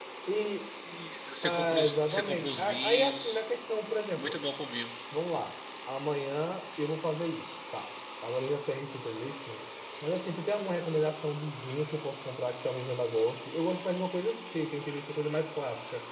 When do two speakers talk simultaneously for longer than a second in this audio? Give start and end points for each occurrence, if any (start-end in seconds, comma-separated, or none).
1.4-3.4